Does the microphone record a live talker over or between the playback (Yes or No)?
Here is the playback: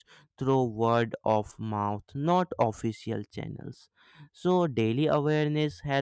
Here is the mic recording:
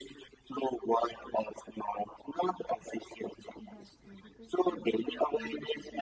Yes